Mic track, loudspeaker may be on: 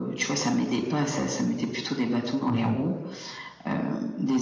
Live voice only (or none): mmh